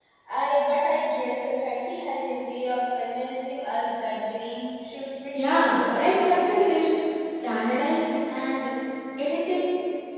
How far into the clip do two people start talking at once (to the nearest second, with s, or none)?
5 s